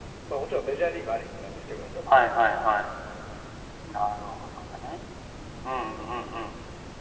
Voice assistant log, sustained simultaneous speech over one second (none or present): none